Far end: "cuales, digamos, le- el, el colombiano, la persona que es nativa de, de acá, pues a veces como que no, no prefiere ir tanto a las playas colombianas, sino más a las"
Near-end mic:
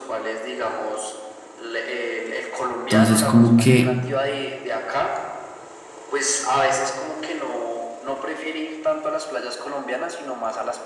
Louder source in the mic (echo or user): user